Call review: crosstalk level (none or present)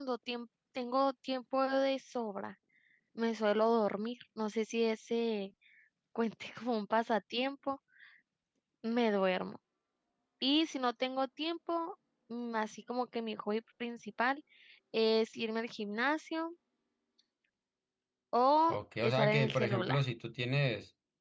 present